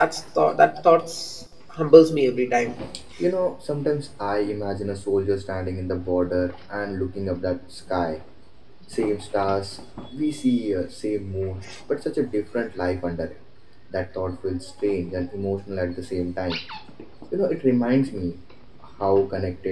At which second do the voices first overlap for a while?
none

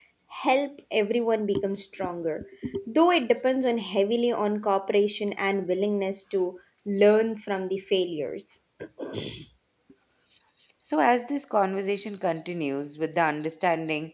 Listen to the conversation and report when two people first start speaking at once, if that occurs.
none

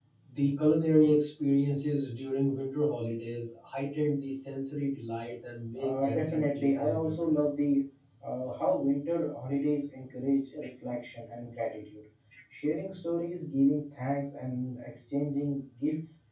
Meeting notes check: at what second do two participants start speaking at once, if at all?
5.7 s

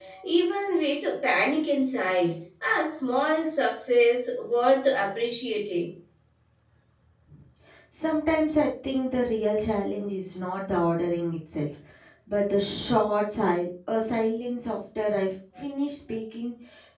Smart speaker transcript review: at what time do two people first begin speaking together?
none

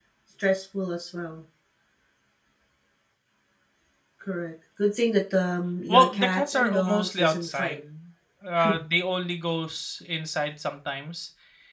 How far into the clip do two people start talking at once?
5.9 s

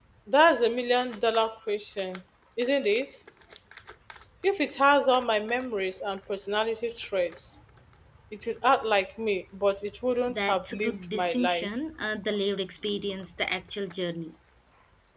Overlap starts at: 10.3 s

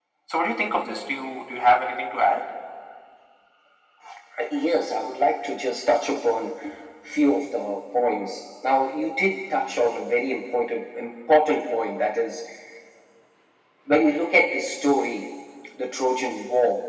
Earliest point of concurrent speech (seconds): none

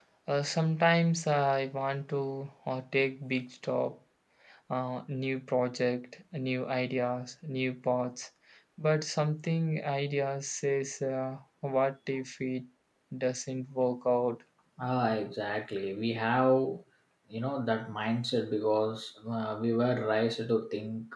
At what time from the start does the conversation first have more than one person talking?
none

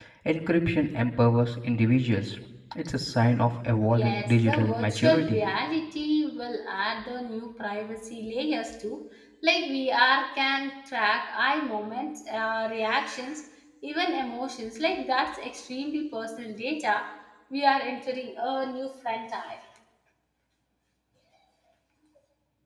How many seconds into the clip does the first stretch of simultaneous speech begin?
3.9 s

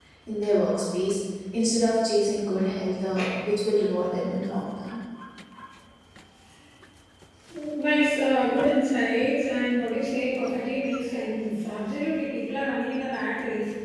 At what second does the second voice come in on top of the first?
none

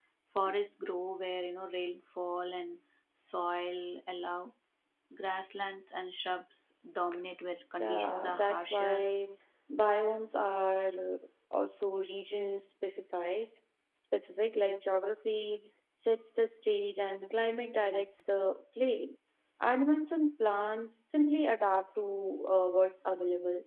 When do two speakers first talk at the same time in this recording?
7.8 s

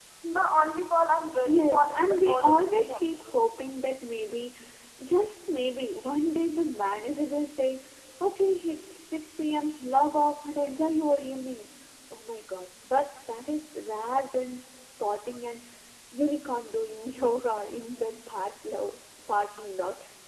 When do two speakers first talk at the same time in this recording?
1.4 s

